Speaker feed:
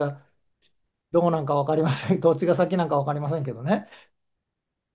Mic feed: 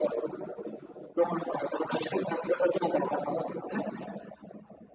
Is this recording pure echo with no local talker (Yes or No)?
Yes